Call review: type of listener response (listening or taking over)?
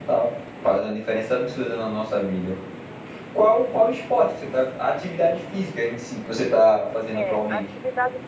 taking over